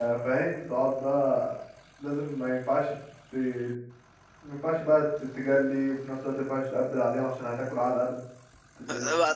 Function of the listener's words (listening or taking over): taking over